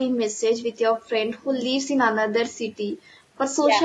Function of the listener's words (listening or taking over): listening